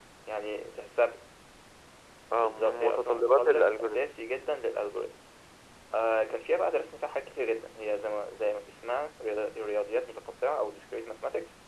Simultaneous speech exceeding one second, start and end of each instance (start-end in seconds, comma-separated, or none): 2.4-4.0